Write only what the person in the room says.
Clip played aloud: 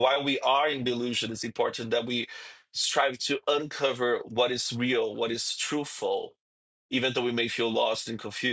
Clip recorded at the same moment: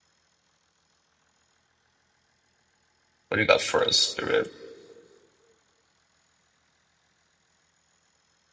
what do you got for us, spirit?

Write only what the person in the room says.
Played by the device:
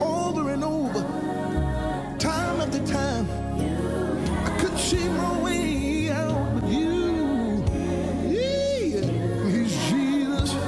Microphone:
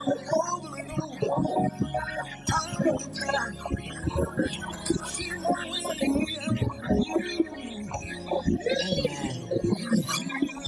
Amen.

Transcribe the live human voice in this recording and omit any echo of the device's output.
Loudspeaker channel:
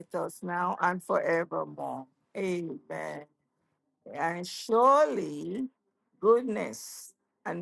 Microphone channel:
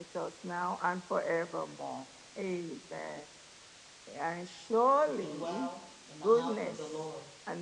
We should dwell in the house of the Lord

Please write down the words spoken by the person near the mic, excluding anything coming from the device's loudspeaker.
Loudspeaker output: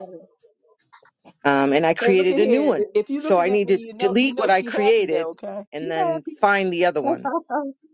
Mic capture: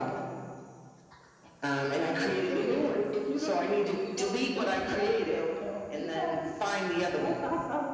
none

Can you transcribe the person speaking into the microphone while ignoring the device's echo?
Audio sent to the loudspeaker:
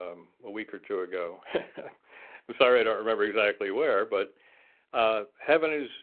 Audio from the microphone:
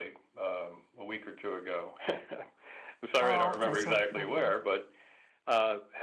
Oh, okay. So mhm.

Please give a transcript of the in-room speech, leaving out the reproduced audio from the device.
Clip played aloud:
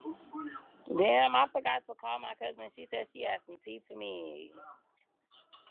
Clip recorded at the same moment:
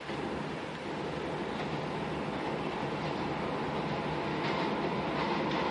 none

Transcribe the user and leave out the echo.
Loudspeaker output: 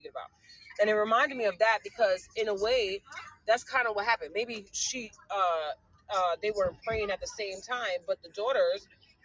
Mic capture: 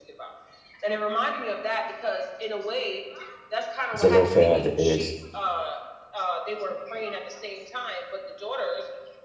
Zelophehad is

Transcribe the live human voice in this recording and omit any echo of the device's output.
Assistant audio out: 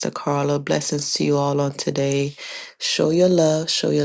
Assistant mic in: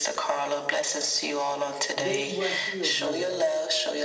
they were healed, Lord.

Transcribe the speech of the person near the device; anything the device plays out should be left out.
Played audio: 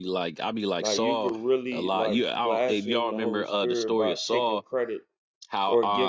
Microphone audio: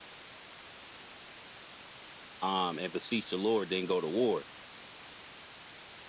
um, and beseech the Lord, then go to war.

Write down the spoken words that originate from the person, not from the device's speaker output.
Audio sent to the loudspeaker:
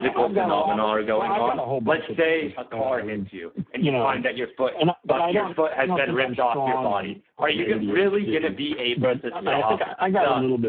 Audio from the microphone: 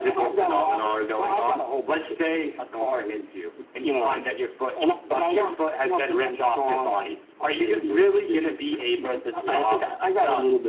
none

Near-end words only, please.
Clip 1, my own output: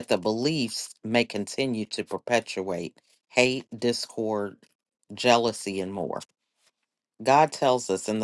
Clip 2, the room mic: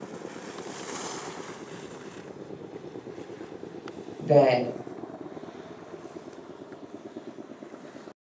that

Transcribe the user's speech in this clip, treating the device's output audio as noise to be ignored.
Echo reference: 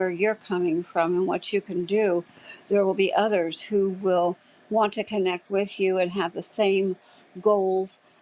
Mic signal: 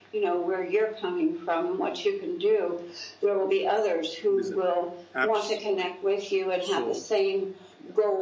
what is it, apps, right? So yeah,

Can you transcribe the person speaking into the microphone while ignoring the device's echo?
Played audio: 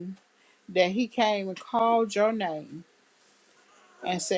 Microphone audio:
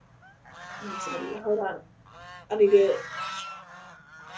I need somebody. Hold on. I need to

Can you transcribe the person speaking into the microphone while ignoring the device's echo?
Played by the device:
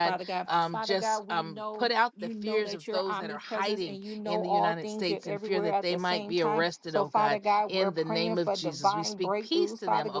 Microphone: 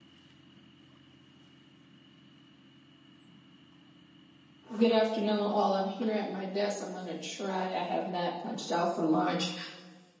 Good afternoon, all. I'm here at my desk. I'm going to try. I have not punched out for lunch.

